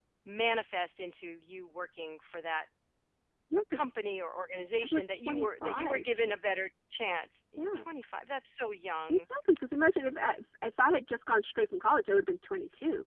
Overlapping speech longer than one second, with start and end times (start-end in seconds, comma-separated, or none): 4.8-6.0